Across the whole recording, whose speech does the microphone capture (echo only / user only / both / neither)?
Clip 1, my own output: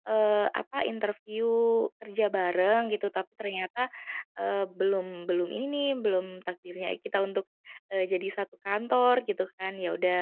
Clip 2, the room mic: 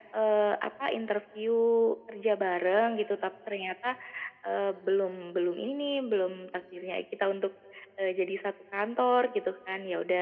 echo only